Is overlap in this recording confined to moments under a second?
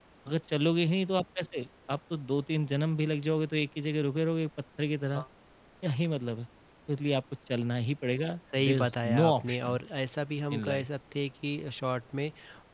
No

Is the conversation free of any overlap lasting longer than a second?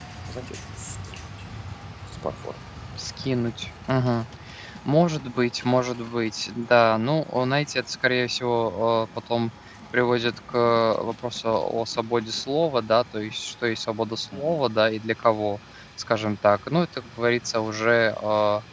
Yes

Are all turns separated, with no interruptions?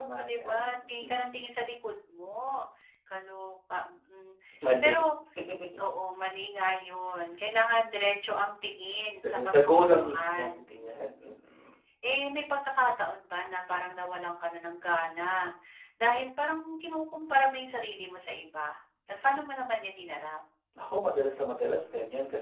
No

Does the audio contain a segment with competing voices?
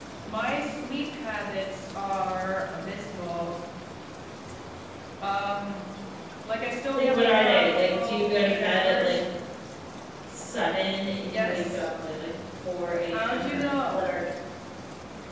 Yes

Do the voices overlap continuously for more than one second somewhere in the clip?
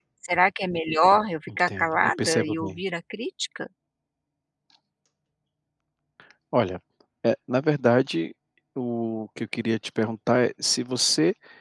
Yes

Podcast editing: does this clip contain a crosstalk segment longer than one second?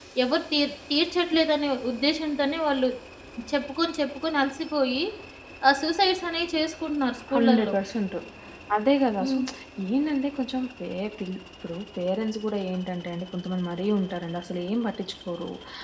No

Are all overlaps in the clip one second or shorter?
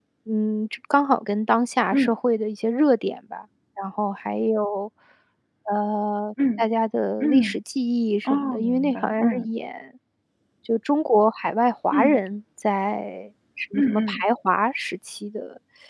No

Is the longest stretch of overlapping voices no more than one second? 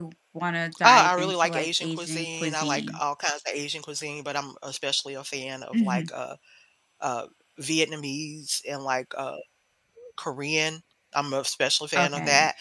No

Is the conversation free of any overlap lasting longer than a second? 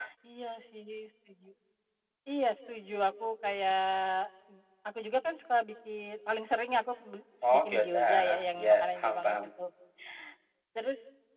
No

